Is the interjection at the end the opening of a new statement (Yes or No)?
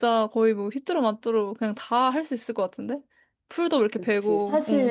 Yes